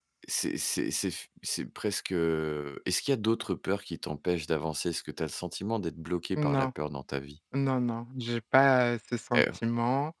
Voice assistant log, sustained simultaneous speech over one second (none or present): none